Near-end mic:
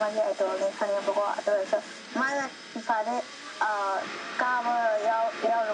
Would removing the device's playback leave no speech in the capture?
Yes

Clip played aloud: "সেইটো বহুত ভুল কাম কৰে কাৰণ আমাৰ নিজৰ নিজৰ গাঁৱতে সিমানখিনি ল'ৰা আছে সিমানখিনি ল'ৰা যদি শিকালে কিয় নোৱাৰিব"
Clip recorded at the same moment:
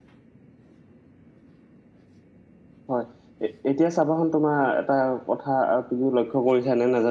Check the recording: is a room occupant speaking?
Yes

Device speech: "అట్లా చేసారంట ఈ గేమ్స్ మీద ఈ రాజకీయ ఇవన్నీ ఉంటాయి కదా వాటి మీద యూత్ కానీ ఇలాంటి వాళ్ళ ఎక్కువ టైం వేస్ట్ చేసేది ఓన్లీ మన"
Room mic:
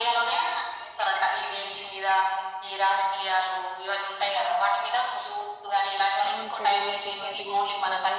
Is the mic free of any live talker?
No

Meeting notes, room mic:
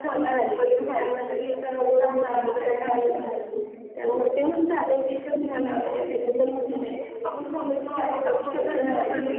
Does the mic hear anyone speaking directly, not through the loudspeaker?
No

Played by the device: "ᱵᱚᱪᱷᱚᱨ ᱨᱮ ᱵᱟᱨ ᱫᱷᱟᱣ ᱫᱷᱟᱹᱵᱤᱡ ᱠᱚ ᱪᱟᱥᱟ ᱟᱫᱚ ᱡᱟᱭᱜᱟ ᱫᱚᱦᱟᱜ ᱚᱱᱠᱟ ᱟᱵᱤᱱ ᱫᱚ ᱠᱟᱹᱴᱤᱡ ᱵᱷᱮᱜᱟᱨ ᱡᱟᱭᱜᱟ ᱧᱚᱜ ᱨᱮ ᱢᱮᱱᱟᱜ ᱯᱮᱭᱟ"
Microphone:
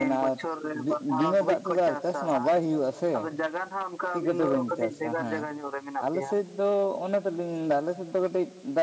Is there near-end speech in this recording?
Yes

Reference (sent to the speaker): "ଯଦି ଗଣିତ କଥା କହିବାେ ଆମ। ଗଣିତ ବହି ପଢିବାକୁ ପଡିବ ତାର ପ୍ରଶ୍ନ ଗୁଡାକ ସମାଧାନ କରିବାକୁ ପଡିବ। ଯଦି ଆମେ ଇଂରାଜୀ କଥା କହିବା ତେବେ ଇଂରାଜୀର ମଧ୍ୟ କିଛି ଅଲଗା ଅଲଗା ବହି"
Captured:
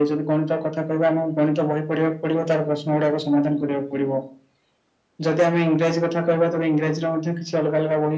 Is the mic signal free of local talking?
Yes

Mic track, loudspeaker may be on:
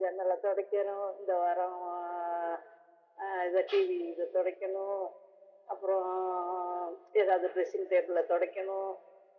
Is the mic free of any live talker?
Yes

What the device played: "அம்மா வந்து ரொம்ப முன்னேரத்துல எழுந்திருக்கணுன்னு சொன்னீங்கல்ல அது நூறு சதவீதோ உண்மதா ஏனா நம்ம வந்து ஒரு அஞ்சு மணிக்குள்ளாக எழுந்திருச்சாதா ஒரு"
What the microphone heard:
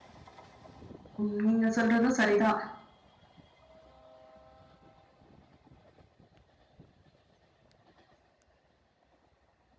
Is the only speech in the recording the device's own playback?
No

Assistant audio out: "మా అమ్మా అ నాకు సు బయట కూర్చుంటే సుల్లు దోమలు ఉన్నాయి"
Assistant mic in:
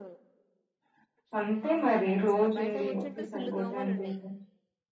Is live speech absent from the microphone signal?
No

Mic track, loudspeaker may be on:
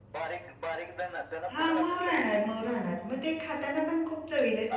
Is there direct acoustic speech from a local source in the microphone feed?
Yes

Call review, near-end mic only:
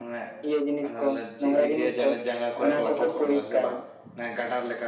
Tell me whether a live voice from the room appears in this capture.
Yes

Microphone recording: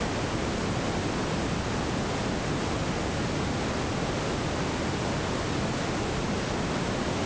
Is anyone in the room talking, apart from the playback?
No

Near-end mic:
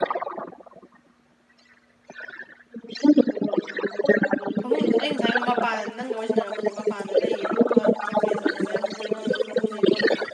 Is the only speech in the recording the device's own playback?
No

